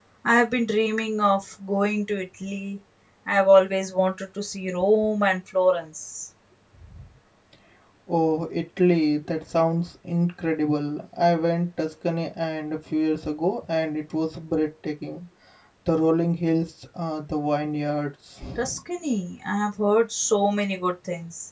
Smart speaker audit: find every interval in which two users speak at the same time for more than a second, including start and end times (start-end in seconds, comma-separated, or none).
none